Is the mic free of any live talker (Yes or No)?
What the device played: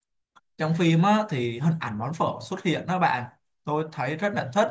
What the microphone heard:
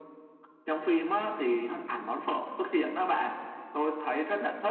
Yes